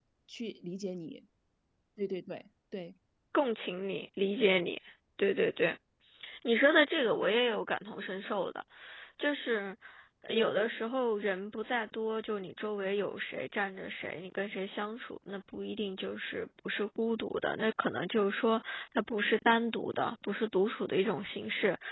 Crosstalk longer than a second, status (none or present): none